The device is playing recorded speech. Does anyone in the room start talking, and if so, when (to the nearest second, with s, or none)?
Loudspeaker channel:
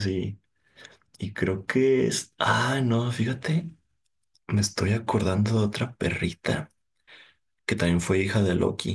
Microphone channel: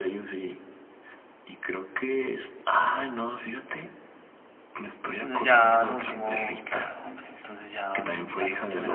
5 s